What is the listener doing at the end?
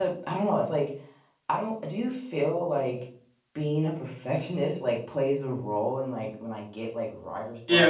taking over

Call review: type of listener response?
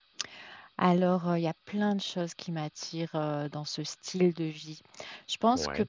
listening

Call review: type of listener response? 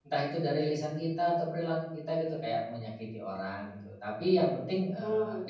listening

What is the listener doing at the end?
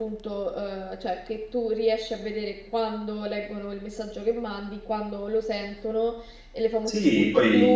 taking over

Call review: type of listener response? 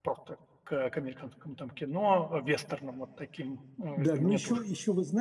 taking over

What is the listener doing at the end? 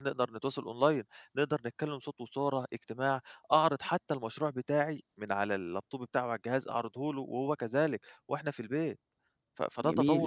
taking over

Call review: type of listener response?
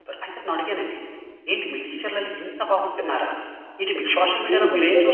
taking over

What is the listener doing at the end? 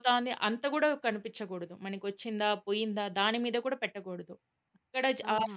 listening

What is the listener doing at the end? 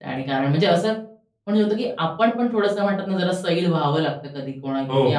listening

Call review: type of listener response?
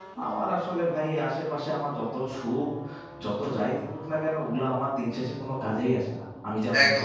taking over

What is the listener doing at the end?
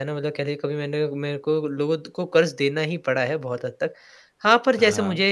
listening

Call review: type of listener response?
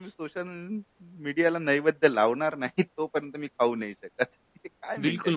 taking over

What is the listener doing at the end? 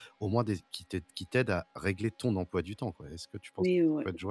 taking over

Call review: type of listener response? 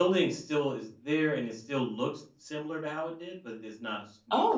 taking over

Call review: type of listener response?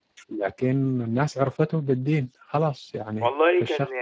taking over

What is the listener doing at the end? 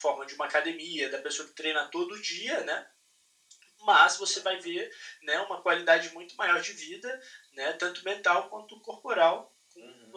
taking over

